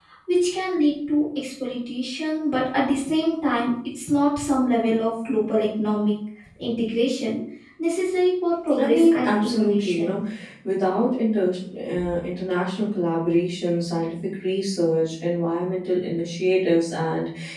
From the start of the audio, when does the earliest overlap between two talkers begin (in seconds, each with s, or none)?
8.7 s